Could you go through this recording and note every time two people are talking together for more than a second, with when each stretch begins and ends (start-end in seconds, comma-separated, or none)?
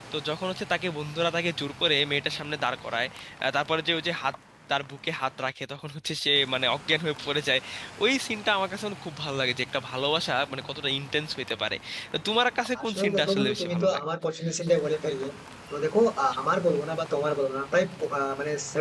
12.8-14.0